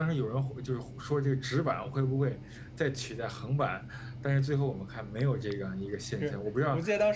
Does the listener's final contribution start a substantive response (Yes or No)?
Yes